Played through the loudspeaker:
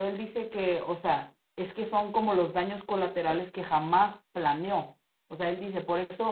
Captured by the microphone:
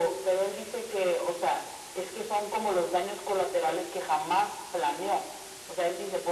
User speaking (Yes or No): No